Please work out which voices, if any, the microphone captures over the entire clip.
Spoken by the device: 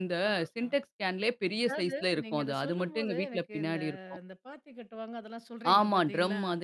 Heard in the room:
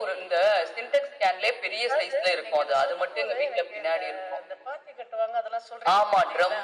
echo only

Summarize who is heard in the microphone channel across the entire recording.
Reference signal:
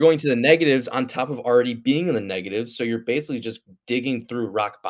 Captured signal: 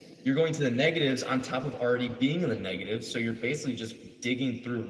echo only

